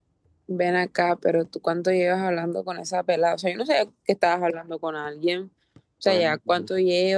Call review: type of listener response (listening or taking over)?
listening